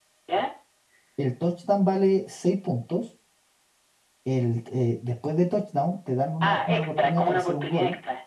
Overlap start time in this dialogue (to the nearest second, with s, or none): 6 s